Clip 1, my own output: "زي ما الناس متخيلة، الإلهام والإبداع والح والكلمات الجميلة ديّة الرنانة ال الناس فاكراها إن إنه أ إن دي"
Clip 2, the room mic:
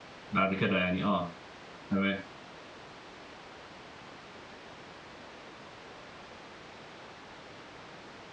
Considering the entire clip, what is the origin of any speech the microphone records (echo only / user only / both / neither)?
user only